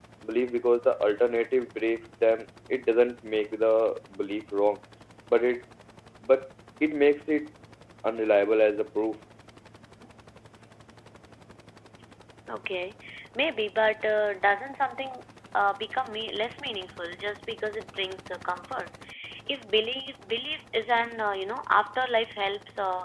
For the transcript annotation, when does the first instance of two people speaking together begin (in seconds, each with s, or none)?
none